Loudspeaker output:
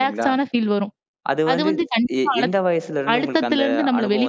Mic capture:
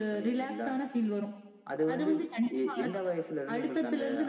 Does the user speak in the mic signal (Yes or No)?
No